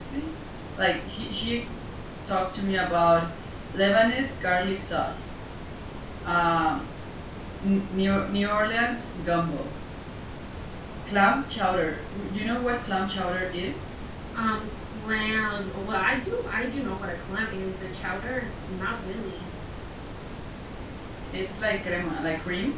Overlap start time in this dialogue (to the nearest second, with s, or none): none